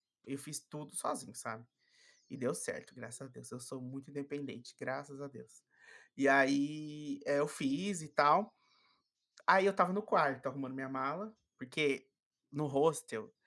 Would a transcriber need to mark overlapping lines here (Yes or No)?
No